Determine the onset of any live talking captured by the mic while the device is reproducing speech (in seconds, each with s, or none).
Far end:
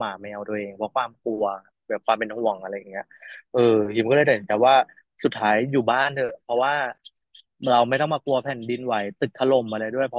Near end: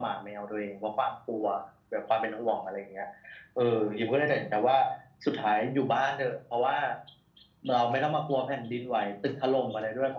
none